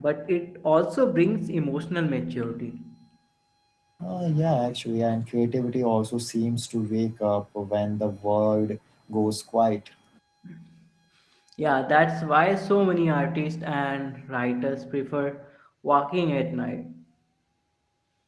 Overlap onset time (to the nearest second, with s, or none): none